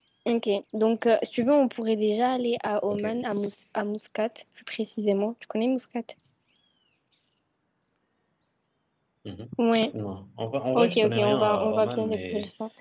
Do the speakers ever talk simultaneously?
Yes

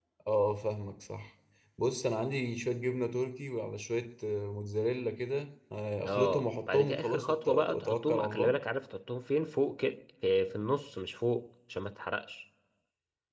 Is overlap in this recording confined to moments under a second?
No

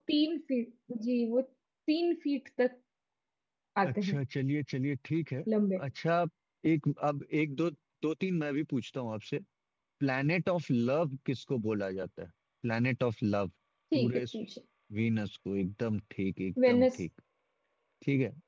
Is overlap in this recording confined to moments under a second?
Yes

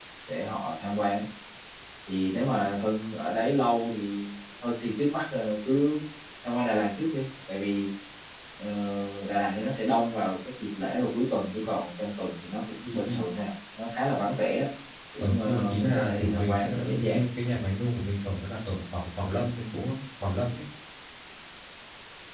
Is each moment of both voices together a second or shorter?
No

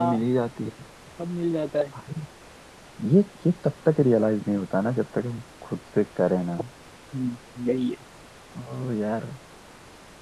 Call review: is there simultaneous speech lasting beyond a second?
No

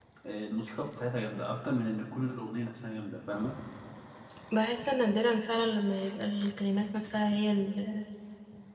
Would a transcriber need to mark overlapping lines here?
No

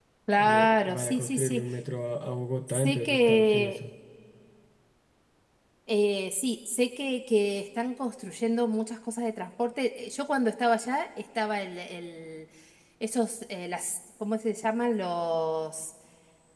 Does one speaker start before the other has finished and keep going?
Yes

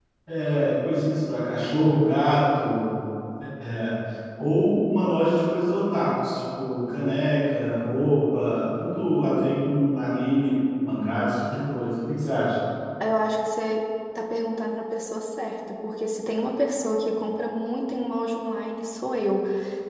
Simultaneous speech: No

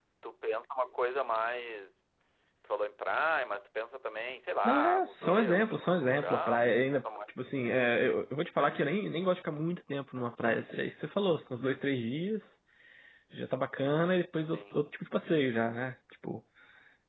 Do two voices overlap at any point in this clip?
Yes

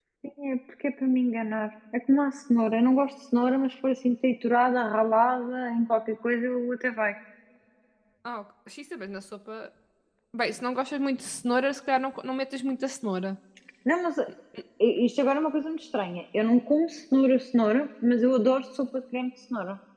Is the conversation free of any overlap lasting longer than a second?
Yes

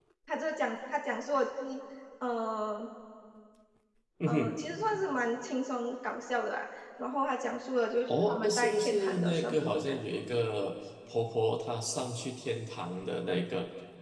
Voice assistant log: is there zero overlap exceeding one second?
No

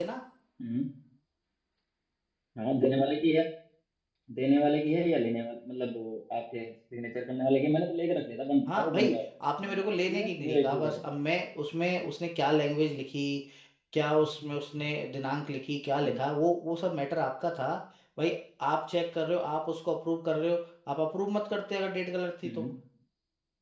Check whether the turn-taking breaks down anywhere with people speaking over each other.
Yes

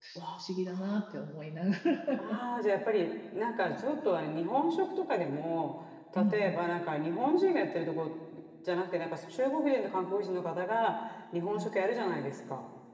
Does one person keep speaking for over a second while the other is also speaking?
No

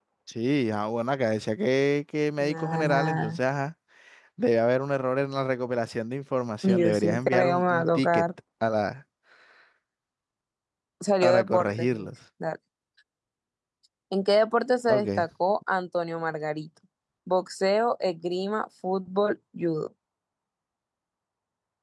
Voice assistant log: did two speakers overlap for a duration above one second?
Yes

